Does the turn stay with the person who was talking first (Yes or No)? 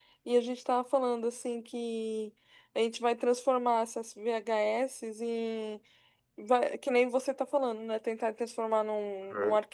Yes